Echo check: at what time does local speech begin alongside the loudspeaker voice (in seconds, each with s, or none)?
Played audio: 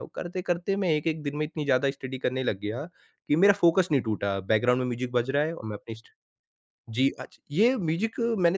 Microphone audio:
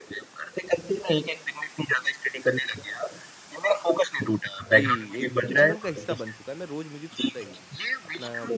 4.6 s